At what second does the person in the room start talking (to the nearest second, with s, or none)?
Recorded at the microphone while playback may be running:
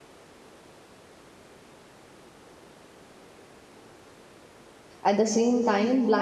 5 s